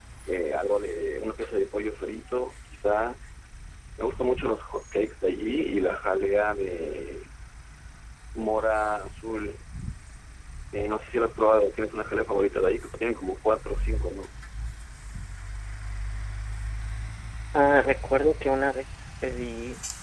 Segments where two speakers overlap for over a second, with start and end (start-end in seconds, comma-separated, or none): none